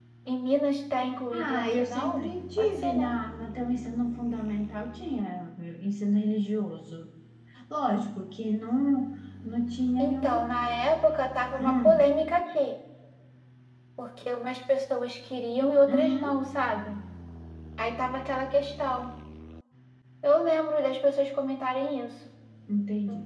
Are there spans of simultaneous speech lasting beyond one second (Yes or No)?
Yes